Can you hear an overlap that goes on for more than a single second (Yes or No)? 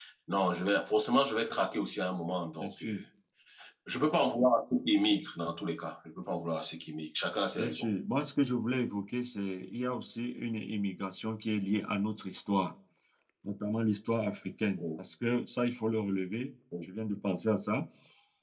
No